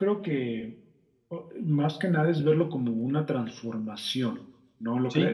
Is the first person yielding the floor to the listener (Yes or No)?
Yes